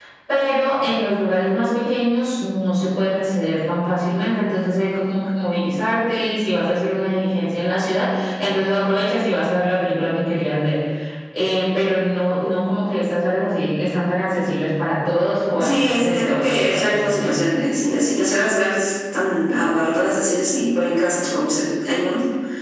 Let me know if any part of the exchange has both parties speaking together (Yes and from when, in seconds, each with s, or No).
Yes, from 15.6 s